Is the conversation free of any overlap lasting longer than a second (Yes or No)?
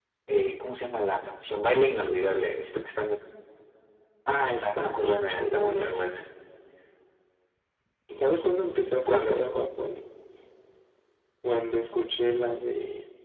No